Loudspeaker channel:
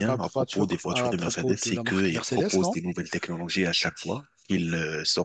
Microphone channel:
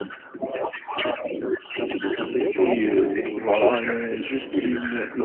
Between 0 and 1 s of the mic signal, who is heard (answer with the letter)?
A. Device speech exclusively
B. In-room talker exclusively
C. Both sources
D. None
A